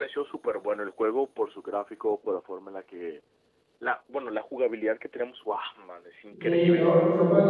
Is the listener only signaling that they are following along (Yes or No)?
No